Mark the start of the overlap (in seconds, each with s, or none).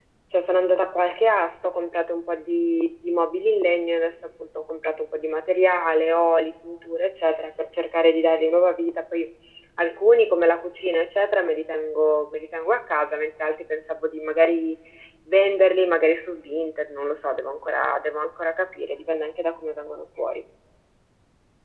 none